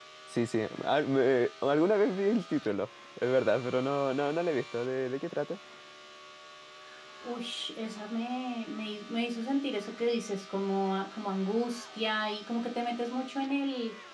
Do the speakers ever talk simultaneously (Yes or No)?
No